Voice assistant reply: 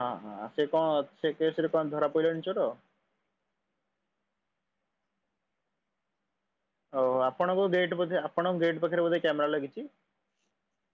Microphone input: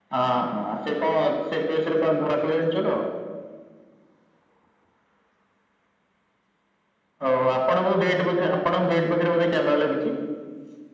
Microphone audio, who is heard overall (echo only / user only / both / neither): echo only